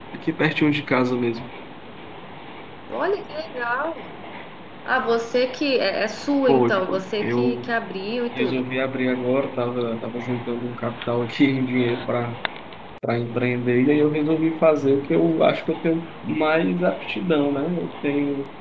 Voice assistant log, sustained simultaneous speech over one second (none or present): present